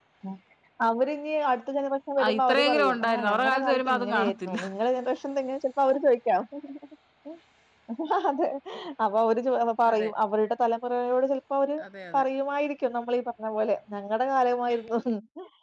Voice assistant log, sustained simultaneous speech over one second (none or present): present